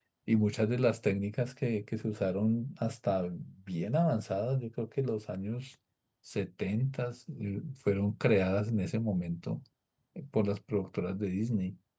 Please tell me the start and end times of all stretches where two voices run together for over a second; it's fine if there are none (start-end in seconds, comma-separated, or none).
none